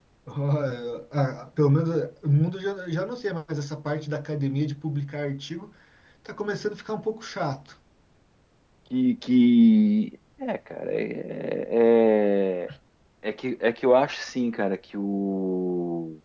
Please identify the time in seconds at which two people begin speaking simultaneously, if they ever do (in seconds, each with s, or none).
none